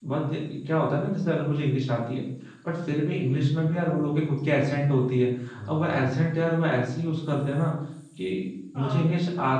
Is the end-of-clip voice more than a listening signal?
No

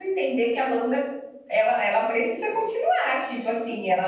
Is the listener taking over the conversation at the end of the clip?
No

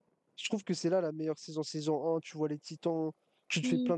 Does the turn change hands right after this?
No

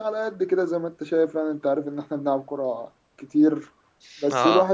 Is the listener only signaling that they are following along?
Yes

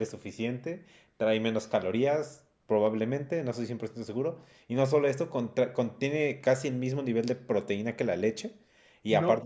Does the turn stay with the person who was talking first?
Yes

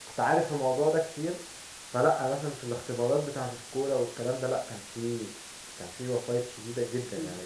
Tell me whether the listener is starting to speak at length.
Yes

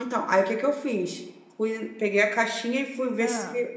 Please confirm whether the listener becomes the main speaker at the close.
No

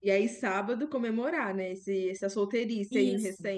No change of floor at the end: No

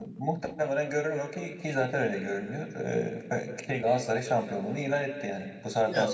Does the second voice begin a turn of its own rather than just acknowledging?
Yes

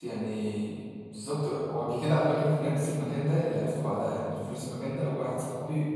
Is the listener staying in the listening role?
Yes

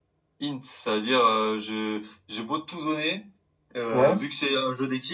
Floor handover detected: No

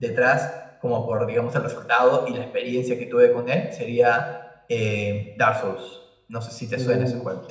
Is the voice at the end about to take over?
Yes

